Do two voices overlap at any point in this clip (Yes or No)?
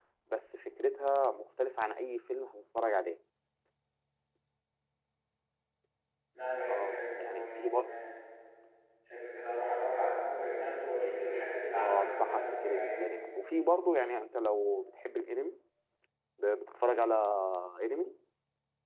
Yes